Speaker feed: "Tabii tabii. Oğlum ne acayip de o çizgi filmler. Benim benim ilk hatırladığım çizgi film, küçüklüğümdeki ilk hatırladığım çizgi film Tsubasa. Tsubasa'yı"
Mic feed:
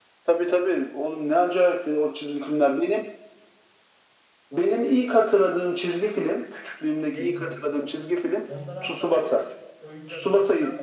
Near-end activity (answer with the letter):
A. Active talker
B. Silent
A